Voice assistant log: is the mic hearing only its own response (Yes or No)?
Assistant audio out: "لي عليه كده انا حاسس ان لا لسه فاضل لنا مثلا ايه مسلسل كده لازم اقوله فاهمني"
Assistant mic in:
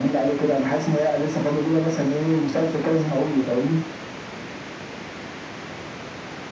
Yes